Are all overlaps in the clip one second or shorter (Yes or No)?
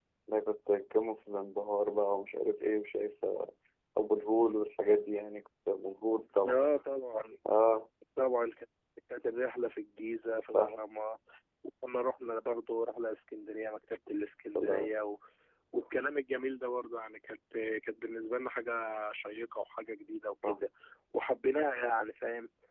Yes